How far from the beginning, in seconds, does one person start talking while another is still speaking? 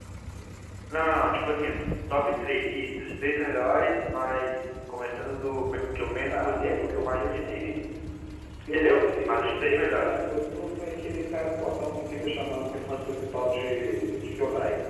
6.3 s

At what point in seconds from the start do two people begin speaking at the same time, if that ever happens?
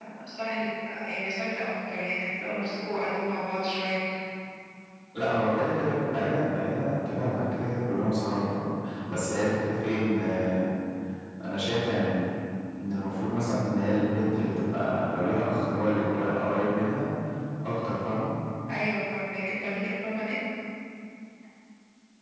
none

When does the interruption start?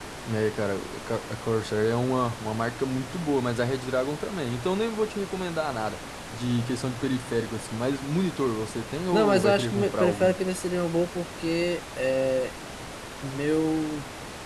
9.1 s

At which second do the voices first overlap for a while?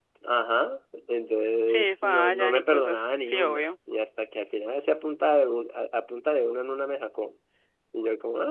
1.7 s

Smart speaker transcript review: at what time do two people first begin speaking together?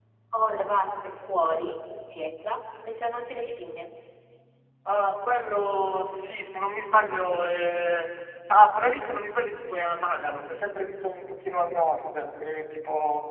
none

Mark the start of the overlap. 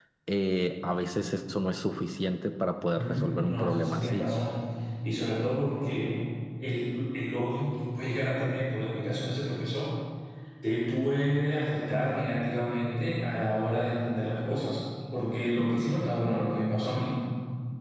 3.0 s

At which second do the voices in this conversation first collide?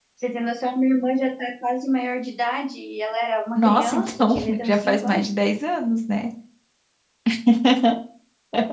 3.6 s

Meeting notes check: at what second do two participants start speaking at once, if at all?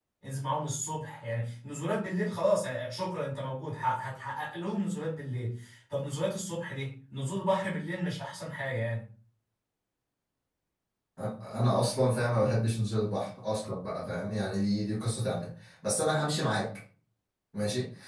none

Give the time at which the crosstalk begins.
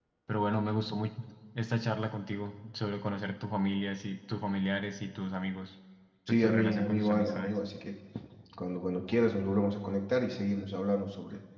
6.3 s

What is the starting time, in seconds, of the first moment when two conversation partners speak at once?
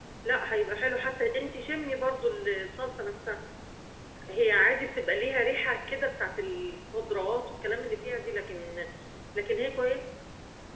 none

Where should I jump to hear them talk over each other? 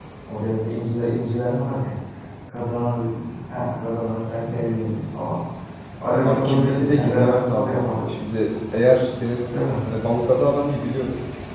6.2 s

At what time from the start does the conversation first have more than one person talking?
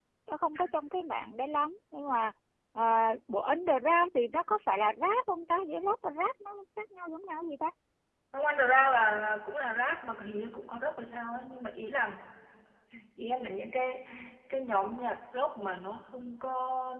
none

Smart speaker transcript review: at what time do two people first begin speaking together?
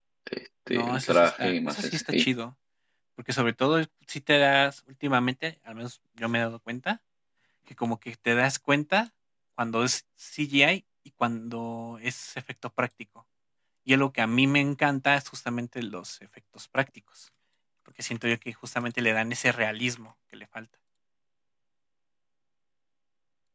0.7 s

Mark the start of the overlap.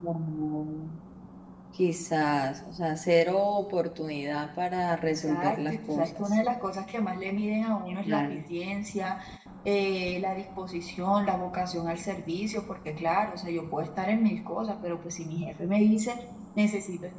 5.0 s

